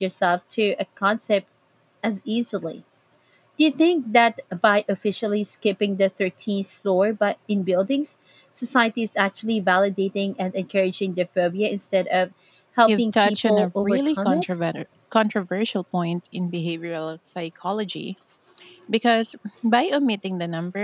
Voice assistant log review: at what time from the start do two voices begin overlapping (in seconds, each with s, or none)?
12.9 s